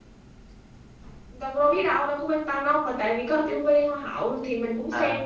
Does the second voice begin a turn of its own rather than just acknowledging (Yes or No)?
Yes